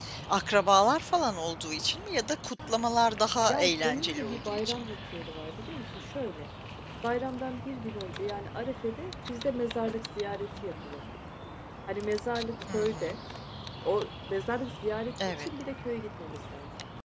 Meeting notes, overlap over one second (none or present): present